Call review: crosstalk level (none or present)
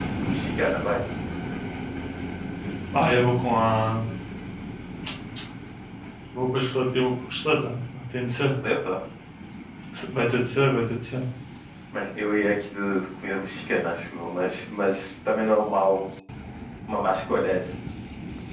none